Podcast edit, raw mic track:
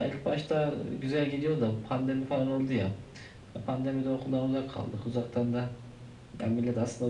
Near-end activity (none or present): none